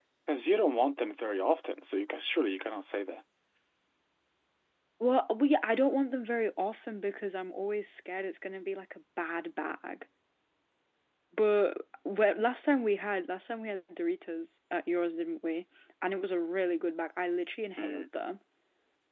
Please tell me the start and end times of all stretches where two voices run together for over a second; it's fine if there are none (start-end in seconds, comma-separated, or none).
none